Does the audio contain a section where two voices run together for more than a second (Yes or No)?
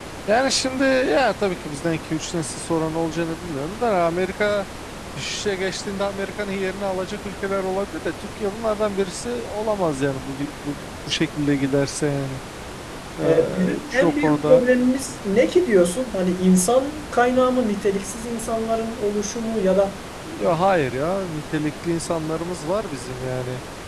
Yes